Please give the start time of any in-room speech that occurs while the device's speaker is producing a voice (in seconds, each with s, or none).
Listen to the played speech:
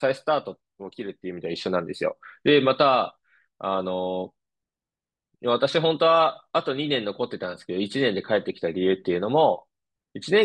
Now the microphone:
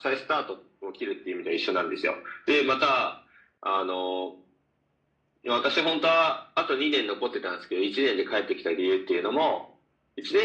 none